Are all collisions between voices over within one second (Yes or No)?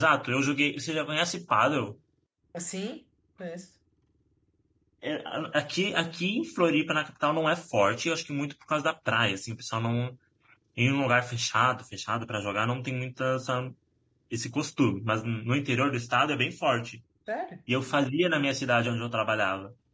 Yes